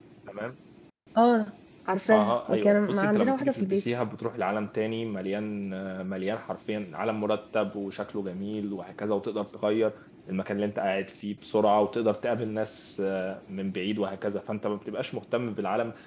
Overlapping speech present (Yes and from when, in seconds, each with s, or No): Yes, from 2.1 s